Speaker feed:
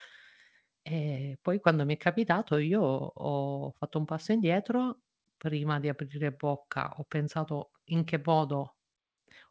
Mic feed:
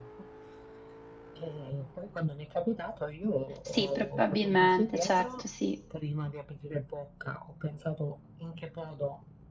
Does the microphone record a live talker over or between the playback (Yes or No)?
Yes